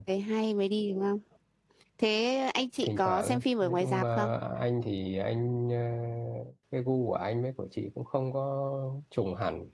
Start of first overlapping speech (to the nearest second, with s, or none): 3 s